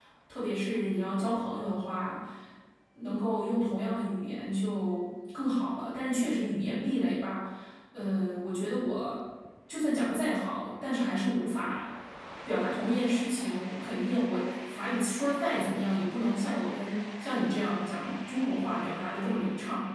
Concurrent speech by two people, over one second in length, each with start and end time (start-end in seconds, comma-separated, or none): none